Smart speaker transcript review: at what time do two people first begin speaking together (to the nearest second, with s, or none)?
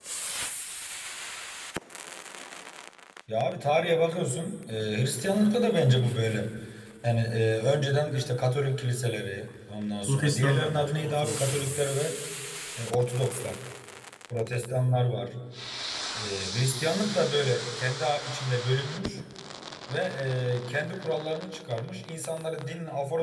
10 s